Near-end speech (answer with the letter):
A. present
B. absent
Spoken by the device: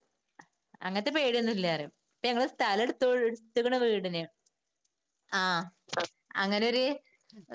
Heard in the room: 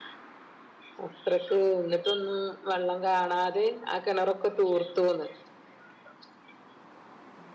A